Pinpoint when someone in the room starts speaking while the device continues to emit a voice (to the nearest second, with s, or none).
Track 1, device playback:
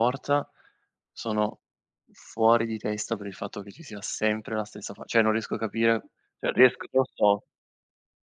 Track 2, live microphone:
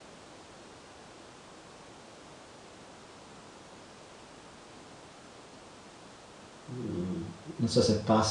7 s